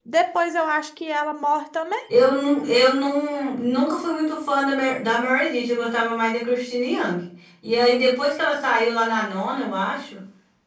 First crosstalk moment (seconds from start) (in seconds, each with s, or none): none